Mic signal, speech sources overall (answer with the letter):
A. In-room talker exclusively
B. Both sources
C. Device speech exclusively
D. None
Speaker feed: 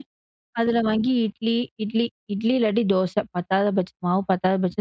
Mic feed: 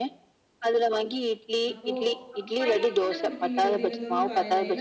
B